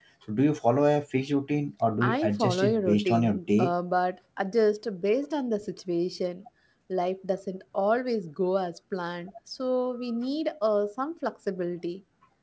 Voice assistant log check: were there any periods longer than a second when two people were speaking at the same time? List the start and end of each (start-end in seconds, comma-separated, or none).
2.0-3.7